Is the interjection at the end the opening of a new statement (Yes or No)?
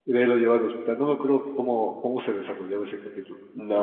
Yes